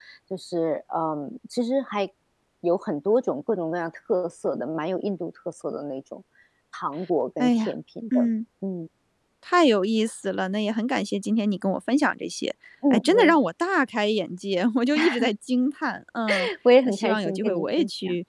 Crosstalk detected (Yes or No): Yes